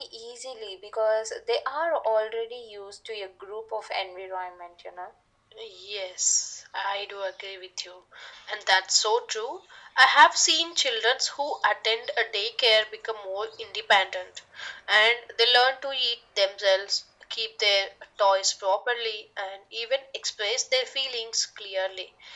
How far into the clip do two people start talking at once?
none

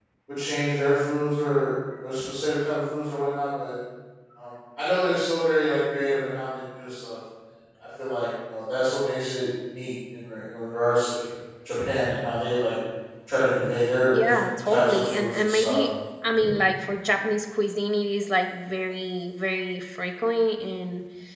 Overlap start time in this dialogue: 14.1 s

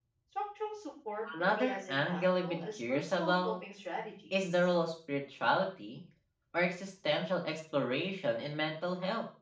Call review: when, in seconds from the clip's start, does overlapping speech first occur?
1.4 s

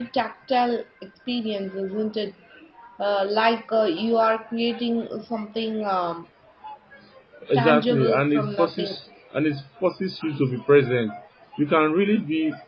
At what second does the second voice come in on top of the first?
7.5 s

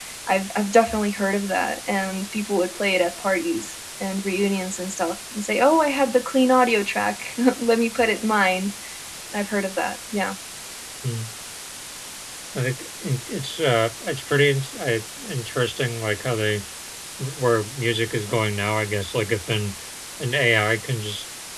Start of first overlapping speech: none

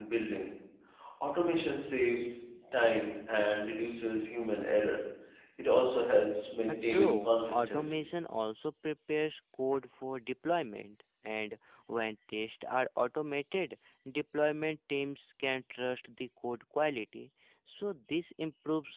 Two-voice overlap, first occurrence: 6.7 s

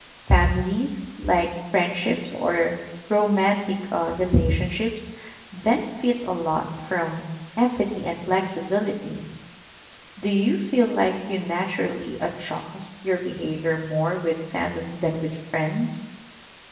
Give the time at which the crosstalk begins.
none

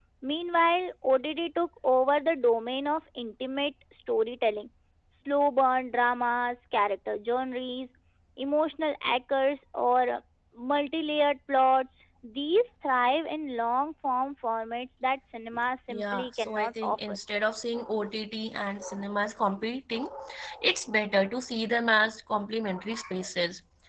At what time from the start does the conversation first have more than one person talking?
15.9 s

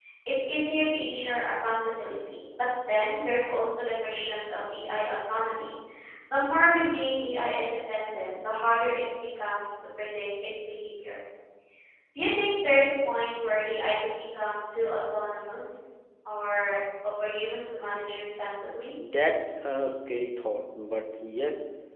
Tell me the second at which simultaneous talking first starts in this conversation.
none

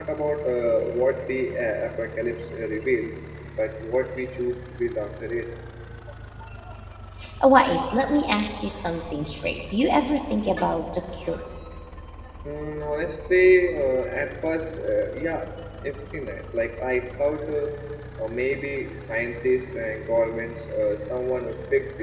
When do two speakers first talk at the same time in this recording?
none

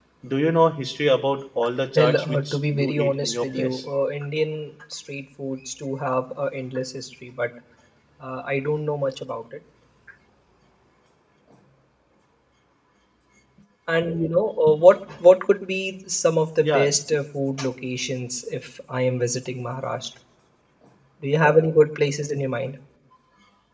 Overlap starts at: 2.0 s

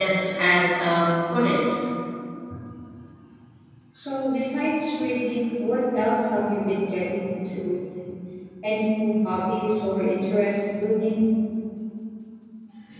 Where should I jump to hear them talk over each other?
none

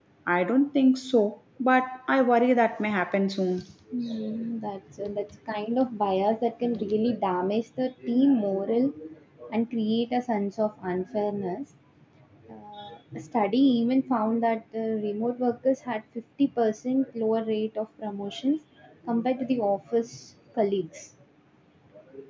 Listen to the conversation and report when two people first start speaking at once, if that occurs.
none

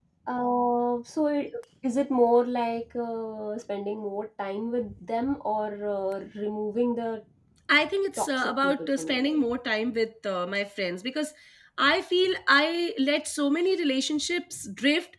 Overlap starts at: 8.2 s

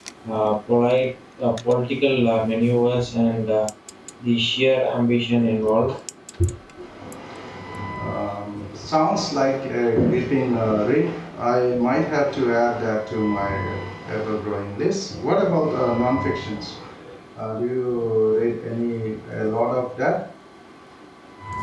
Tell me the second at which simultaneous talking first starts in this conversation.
none

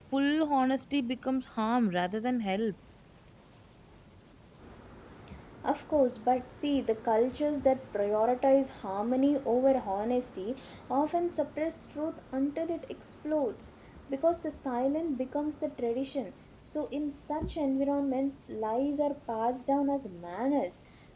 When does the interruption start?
none

